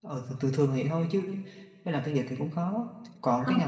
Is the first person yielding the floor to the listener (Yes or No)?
No